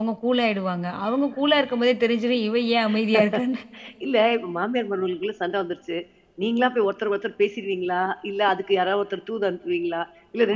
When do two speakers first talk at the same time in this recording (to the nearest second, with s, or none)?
none